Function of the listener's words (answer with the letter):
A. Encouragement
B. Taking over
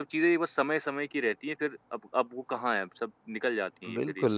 B